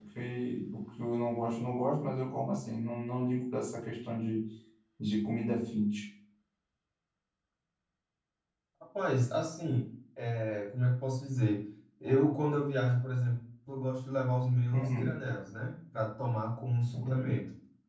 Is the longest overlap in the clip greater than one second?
No

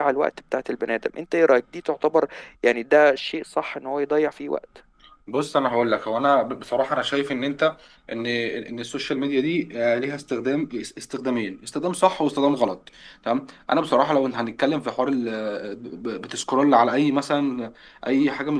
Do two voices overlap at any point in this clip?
No

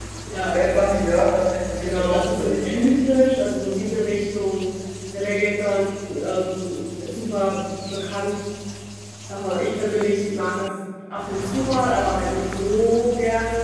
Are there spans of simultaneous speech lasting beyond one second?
Yes, from 1.8 s

